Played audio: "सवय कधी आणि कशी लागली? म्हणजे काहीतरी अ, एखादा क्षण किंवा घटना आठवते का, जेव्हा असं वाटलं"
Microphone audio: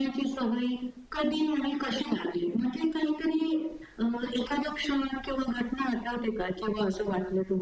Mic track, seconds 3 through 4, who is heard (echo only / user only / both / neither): echo only